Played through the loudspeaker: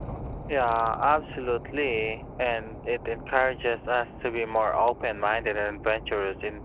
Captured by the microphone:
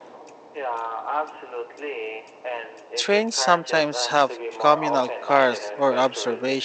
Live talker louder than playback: Yes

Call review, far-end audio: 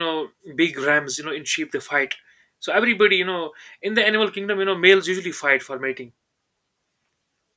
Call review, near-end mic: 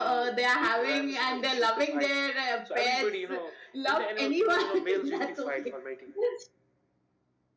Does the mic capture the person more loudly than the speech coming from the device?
Yes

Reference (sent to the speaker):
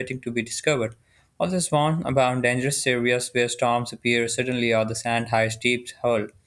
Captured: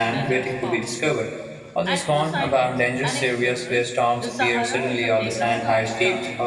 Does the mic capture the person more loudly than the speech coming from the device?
No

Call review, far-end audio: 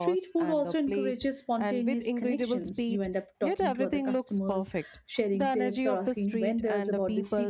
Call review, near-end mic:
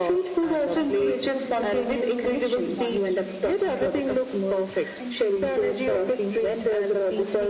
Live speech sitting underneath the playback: Yes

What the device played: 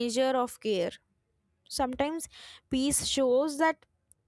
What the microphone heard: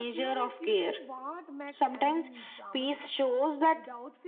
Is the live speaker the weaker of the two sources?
Yes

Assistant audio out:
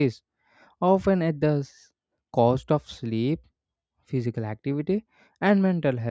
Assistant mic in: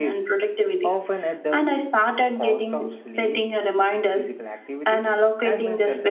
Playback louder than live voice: No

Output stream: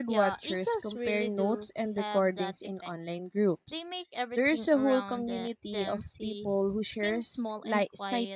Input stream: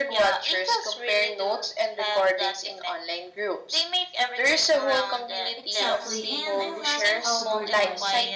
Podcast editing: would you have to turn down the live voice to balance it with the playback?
No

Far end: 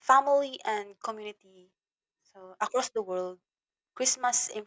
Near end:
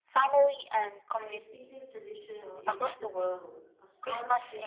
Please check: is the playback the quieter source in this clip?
No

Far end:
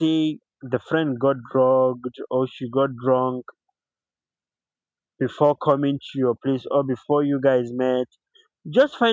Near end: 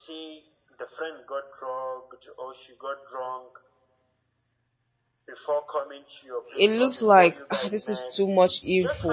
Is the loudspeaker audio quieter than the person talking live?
Yes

